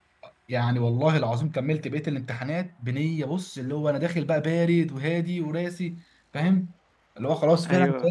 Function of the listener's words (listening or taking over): listening